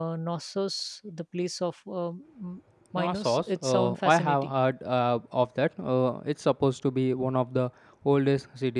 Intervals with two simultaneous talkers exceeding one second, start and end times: 3.0-4.5

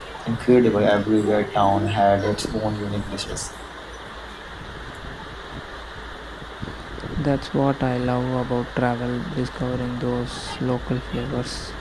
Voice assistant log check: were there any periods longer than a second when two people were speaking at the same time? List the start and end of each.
none

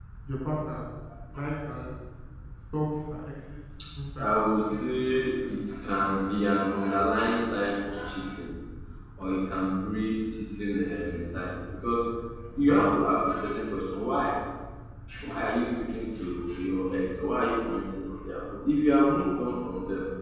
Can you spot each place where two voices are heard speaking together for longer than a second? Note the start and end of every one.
4.2-5.5

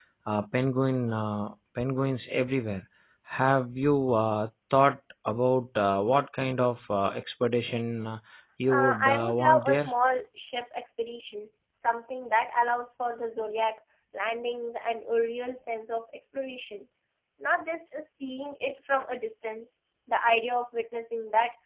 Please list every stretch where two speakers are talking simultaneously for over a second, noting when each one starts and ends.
8.7-9.9

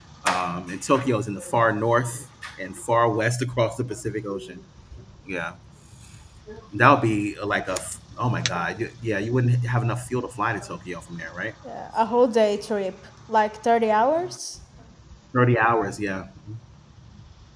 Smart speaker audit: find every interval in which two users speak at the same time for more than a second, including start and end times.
none

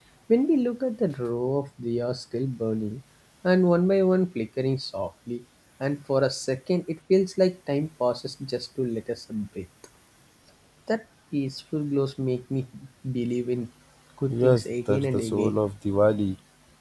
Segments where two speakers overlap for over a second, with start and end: 14.3-15.5

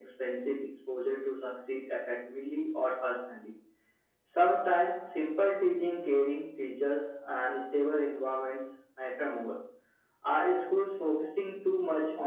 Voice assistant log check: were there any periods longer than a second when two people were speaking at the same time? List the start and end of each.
none

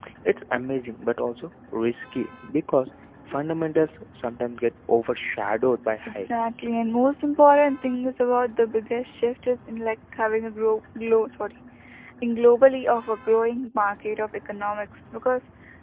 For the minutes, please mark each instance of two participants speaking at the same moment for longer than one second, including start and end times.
none

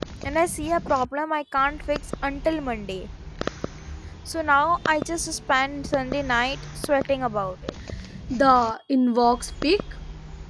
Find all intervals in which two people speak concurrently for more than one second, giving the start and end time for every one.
none

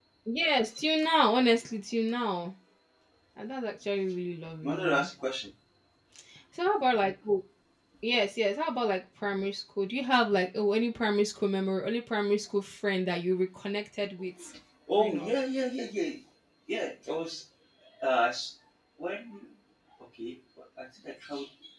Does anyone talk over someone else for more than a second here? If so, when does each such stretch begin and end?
none

